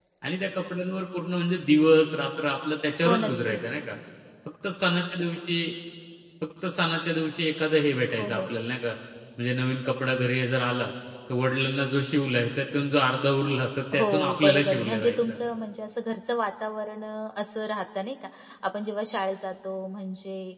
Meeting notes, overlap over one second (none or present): present